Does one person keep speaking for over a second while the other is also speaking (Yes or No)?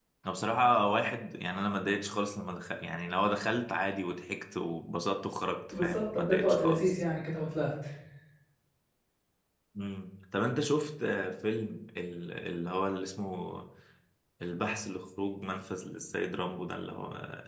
Yes